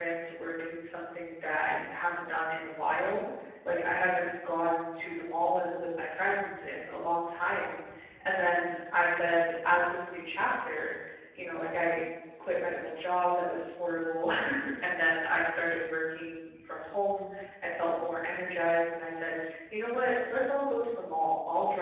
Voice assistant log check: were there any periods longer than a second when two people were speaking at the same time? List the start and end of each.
none

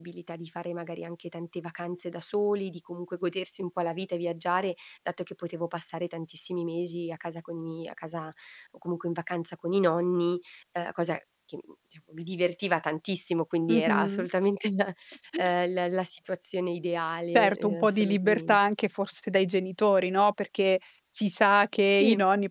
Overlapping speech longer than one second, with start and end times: 17.4-18.6

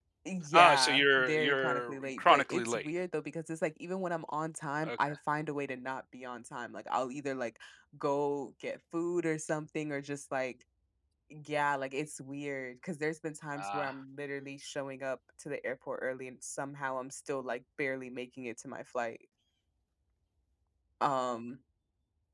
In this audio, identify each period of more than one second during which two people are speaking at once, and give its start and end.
0.5-2.9

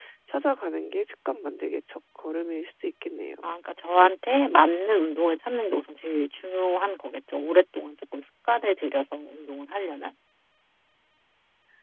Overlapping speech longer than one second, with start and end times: none

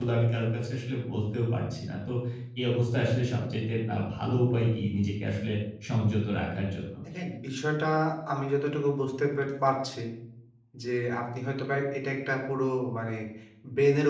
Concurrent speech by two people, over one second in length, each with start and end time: none

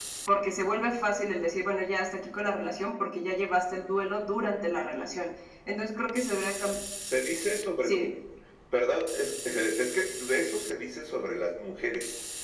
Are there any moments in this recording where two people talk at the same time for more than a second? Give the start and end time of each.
none

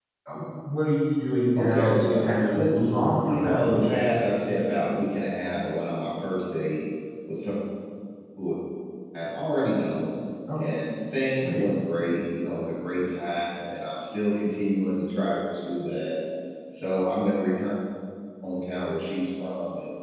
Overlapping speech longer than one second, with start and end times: 1.6-4.2

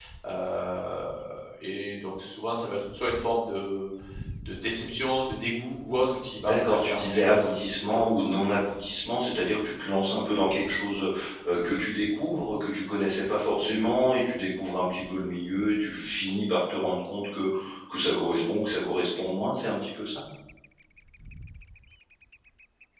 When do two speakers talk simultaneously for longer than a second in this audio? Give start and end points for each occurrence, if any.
6.4-8.4

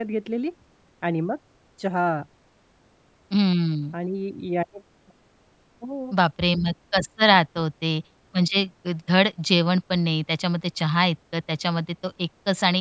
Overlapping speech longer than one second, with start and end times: none

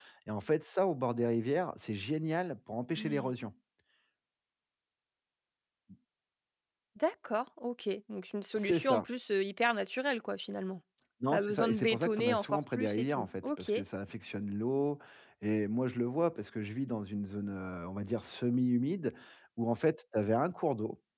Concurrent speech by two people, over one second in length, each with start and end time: 11.3-13.7

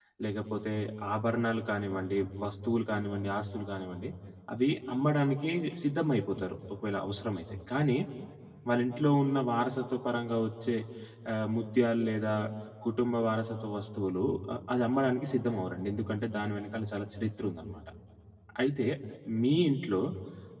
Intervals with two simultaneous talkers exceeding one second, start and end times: none

